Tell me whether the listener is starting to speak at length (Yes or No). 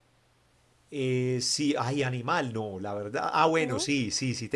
No